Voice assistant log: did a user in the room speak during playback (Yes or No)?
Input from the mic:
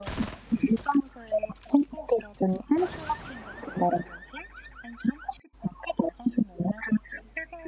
No